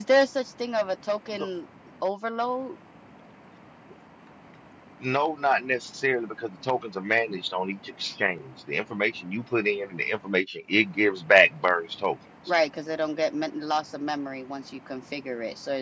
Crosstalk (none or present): none